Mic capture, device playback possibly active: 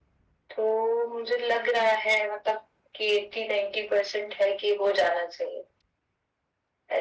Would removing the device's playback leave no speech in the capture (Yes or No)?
Yes